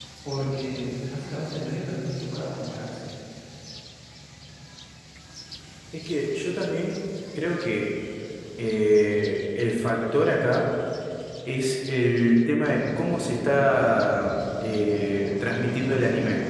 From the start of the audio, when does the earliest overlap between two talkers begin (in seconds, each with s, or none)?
none